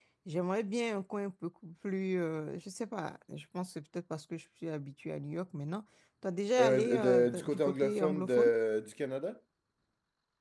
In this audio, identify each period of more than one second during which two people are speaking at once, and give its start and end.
6.6-8.5

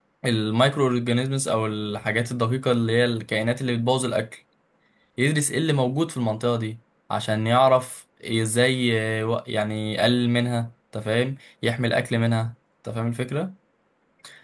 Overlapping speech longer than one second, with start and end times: none

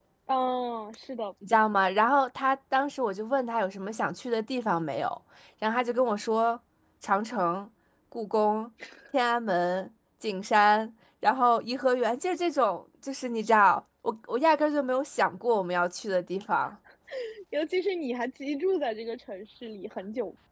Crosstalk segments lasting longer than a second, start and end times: none

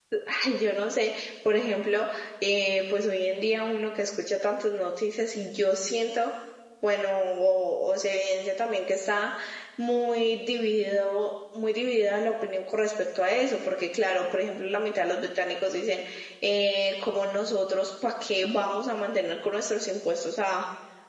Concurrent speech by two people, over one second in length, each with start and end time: none

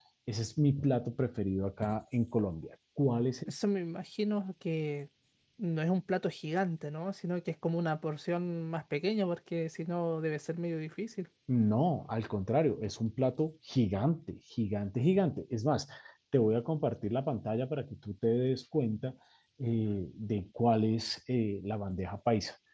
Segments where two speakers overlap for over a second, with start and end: none

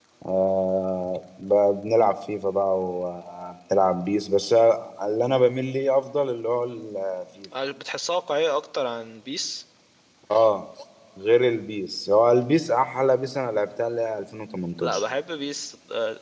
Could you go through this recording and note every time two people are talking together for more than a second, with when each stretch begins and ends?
none

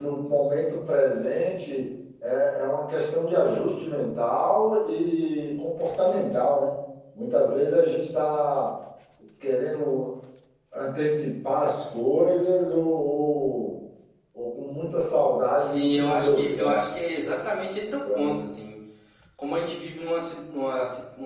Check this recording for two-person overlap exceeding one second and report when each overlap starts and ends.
15.6-16.8

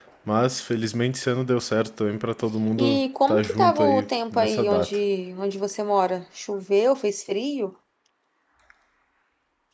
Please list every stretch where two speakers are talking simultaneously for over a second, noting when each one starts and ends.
2.8-5.0

